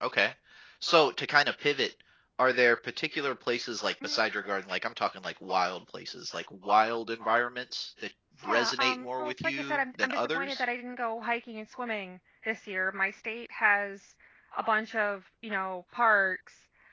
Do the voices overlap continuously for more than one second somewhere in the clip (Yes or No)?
Yes